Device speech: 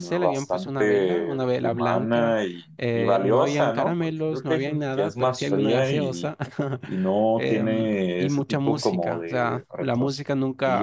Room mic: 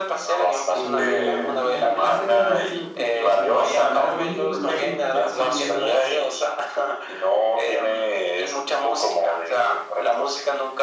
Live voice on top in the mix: No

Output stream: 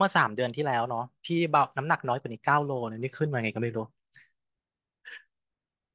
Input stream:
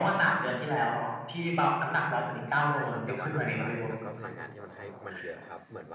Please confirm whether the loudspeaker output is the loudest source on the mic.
Yes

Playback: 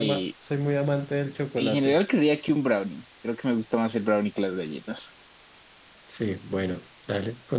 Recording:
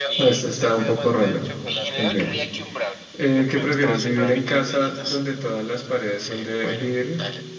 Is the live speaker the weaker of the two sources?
No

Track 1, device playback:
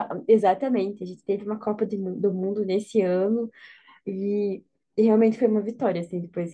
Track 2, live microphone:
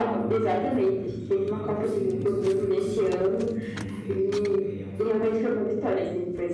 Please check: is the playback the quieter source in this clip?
No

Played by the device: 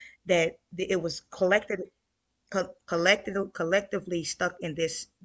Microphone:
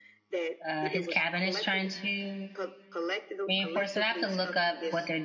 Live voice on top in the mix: Yes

